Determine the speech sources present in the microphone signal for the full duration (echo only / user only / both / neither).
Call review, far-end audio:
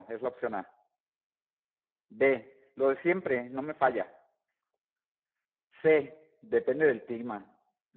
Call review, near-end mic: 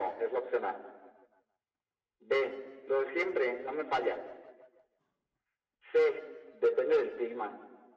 echo only